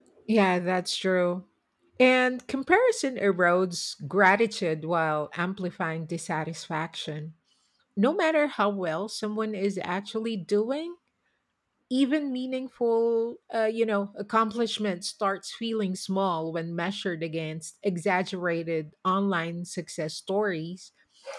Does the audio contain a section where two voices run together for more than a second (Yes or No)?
No